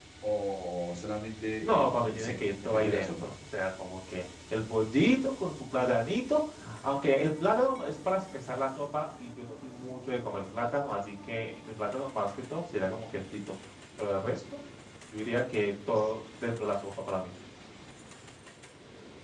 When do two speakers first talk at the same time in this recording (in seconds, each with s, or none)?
1.6 s